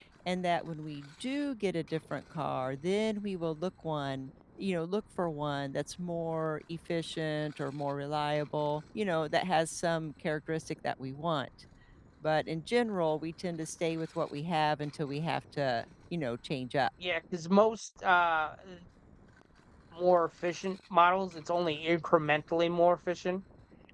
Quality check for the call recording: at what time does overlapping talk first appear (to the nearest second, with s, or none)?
none